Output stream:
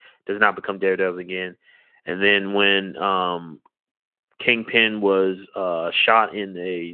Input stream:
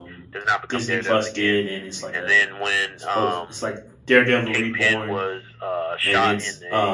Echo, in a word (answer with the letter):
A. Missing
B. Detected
B